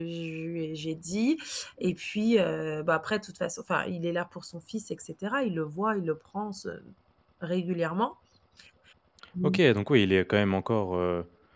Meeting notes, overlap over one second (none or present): none